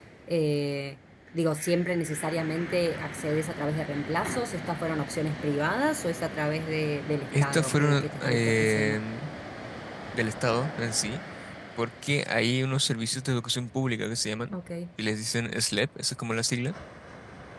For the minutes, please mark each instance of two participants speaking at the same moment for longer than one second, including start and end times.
7.4-9.0

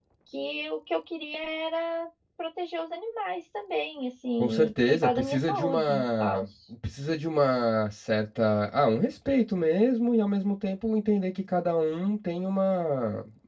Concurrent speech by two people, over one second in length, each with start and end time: 4.4-6.4

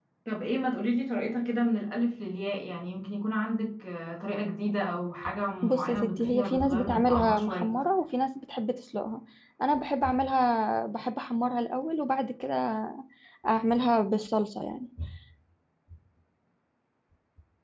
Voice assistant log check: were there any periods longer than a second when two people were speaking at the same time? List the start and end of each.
5.6-7.7

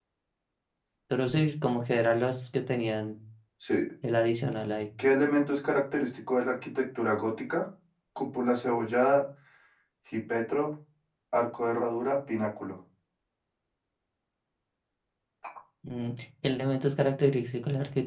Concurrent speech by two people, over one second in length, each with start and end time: none

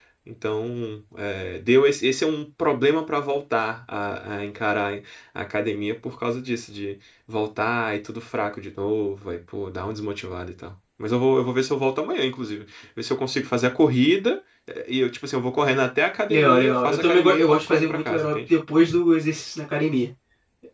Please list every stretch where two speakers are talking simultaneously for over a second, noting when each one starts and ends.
16.3-18.4

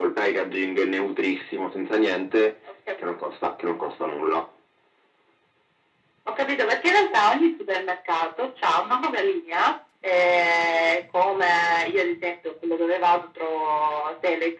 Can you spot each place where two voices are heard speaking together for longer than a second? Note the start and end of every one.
none

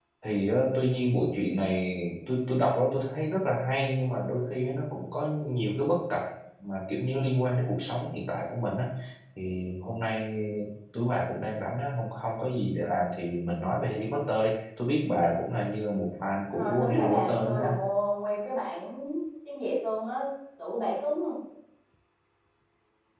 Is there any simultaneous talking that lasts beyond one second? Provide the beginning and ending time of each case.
16.5-17.8

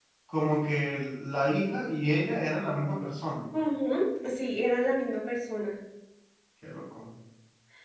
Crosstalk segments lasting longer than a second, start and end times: none

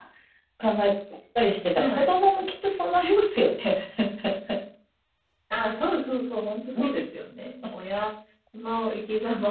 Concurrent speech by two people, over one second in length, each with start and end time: none

